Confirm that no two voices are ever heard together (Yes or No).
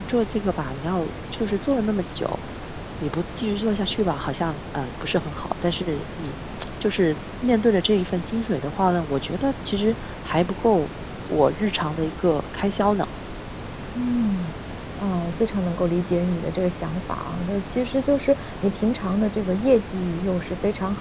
Yes